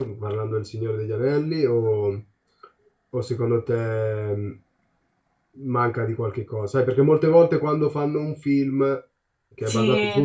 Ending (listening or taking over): listening